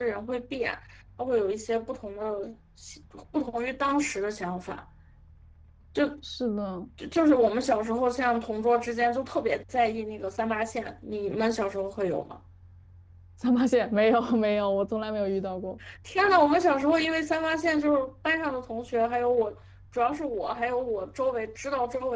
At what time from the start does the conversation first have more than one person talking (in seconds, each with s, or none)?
none